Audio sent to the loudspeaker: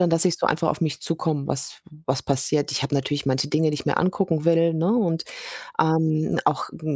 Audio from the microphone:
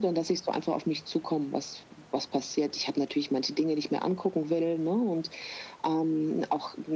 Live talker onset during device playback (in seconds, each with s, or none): none